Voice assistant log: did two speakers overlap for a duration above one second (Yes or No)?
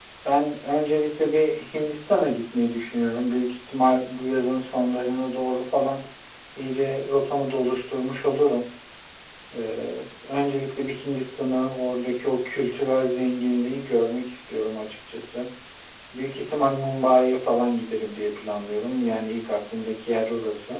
No